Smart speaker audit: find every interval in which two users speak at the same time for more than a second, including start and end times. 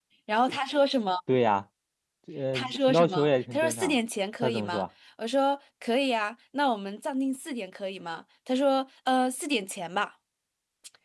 2.5-3.9

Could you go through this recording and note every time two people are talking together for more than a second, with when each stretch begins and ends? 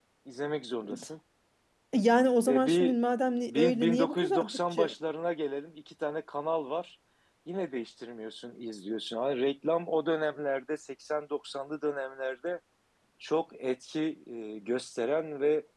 3.5-4.9

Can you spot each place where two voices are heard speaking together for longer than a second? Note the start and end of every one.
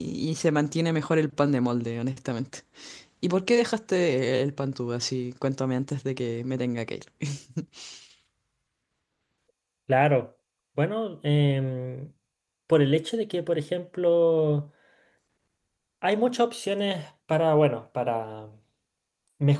none

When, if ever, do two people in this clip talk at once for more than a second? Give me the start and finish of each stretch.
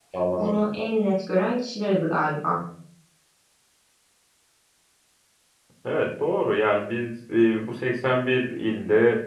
none

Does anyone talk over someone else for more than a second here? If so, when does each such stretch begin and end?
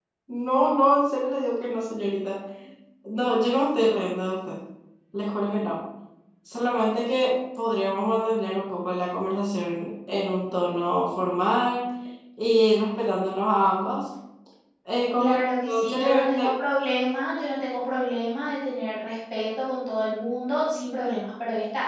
15.2-16.5

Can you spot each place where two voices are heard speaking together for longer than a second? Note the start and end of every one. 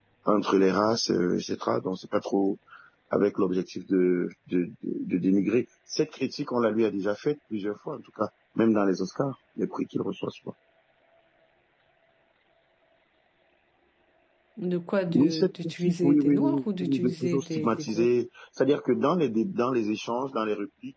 15.1-18.1

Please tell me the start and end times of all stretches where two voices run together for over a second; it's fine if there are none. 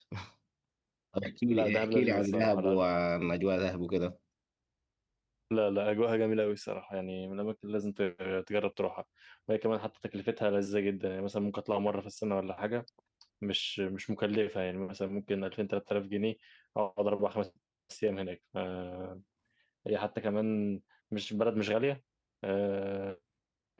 1.4-2.8

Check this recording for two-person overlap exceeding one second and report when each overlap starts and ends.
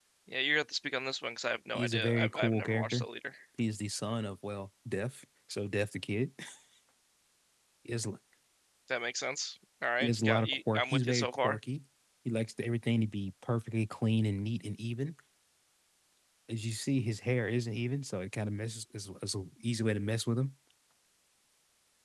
1.8-3.1, 10.0-11.6

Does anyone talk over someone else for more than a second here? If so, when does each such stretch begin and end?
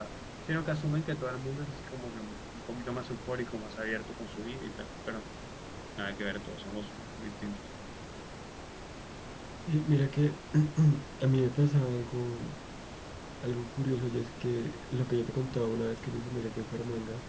none

